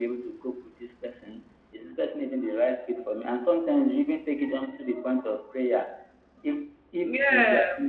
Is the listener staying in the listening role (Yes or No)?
Yes